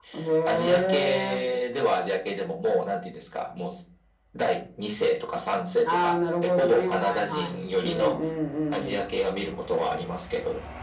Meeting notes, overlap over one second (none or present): present